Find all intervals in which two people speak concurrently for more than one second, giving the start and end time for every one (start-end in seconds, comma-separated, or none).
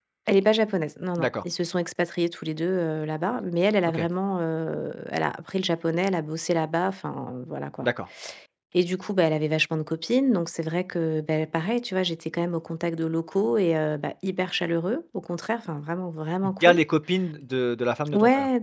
none